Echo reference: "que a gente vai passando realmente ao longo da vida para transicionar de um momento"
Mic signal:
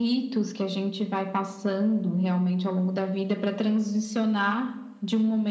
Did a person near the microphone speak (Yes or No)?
No